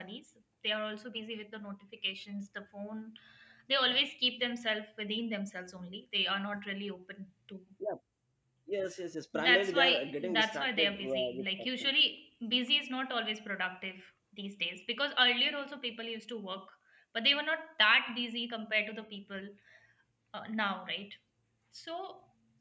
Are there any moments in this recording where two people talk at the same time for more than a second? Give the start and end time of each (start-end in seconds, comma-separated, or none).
9.3-11.9